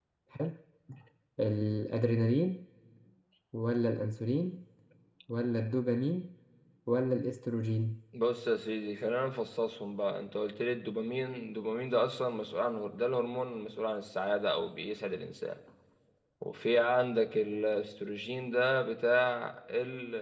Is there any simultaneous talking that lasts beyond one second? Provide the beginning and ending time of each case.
none

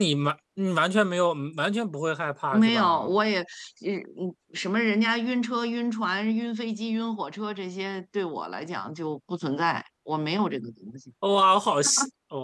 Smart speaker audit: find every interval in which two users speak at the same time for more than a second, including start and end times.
none

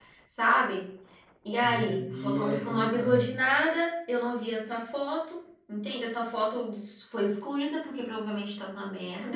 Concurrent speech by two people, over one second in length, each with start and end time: 1.6-3.2

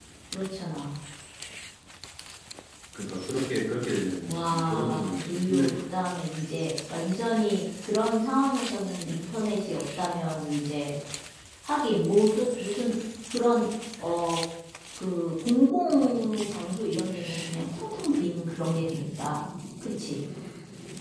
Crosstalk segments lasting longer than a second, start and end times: 4.2-5.8

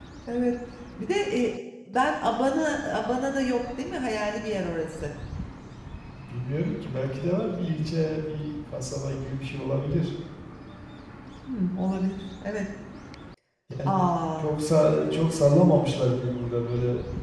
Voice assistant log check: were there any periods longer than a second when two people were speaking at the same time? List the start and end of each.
none

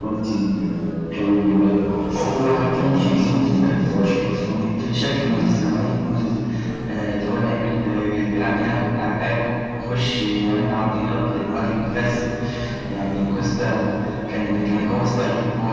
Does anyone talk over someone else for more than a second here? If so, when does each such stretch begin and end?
2.2-4.6

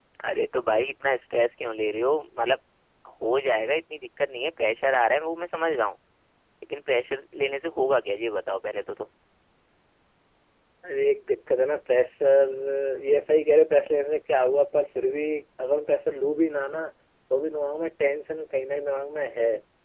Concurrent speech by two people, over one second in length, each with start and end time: none

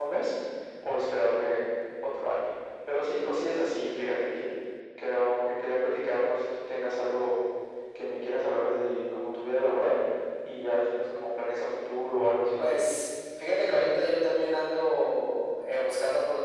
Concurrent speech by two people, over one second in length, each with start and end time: none

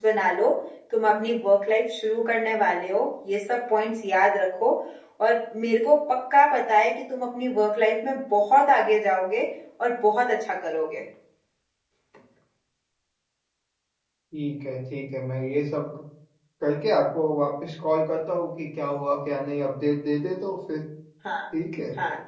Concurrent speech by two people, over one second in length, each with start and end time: none

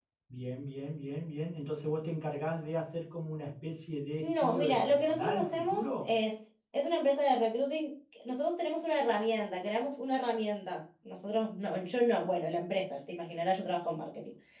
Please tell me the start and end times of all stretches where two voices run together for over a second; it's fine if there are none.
4.2-6.1

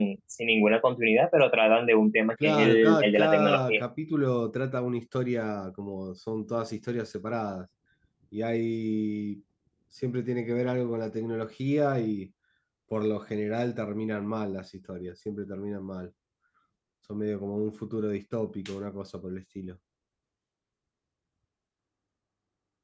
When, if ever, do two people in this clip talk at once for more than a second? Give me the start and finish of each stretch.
2.4-3.8

